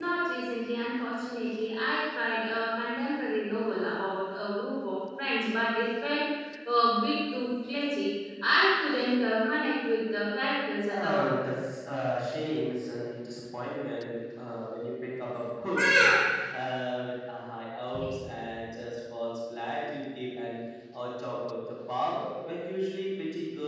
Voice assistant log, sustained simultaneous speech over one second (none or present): none